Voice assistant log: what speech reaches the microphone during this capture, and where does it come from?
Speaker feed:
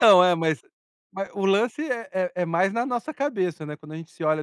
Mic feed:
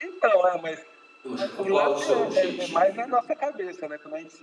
both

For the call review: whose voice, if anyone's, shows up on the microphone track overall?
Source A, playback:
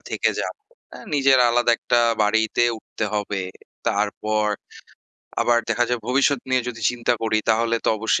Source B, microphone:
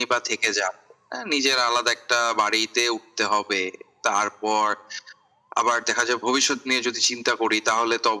echo only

